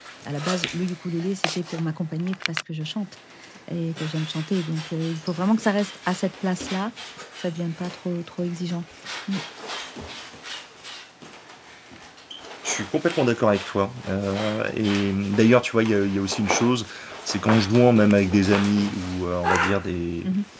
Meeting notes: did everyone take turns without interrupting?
Yes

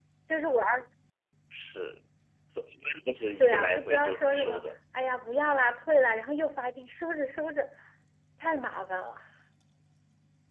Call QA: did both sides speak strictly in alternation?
No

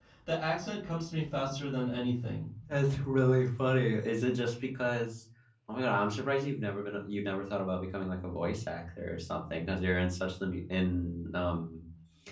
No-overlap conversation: Yes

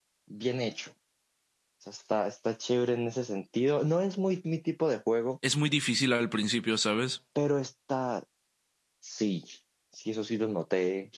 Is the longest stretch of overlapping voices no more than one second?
Yes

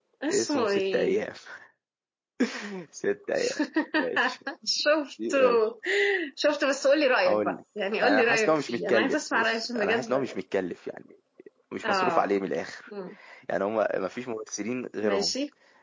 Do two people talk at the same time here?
Yes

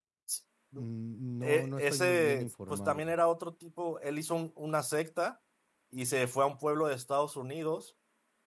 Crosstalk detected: Yes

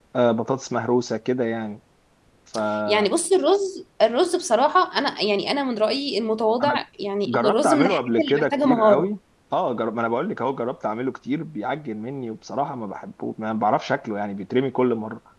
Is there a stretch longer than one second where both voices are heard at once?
Yes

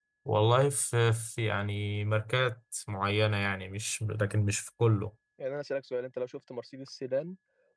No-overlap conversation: Yes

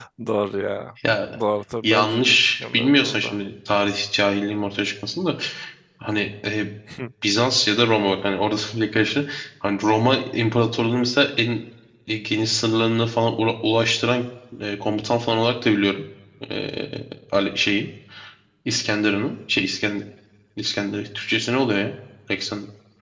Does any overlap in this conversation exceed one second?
Yes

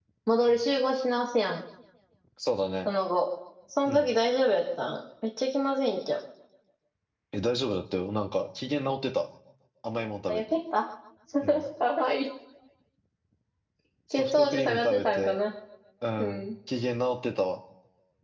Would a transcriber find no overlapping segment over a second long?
No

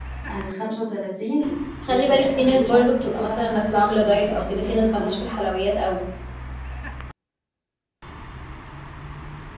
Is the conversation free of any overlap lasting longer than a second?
No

